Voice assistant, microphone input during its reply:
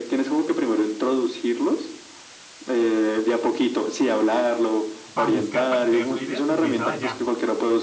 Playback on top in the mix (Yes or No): Yes